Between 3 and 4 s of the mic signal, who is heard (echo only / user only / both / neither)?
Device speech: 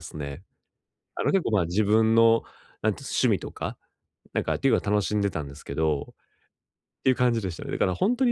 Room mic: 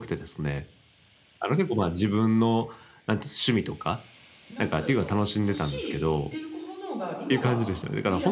echo only